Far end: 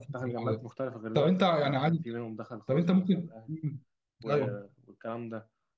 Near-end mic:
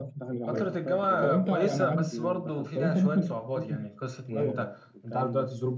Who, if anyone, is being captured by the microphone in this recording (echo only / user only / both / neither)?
both